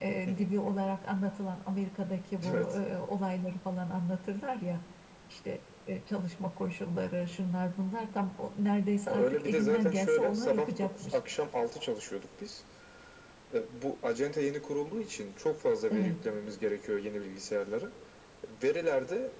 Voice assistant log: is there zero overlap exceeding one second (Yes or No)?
No